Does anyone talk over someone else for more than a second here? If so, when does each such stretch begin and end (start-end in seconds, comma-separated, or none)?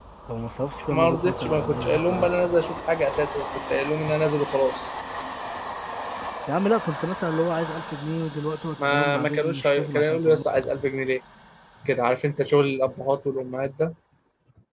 0.9-2.3, 8.8-10.4